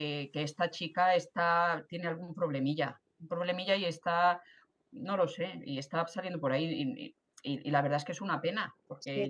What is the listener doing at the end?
listening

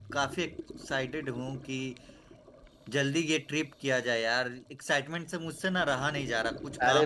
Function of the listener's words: taking over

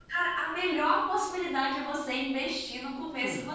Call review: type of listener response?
taking over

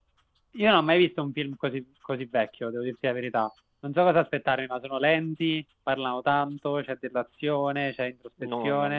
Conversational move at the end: taking over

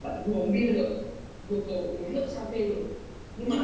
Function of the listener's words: listening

